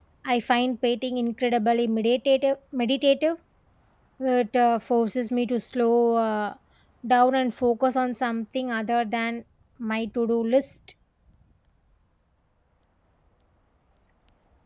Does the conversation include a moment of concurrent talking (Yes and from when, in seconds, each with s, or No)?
No